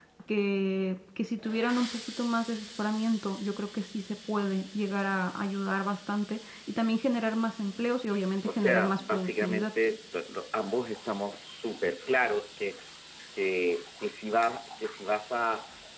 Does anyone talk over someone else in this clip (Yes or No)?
Yes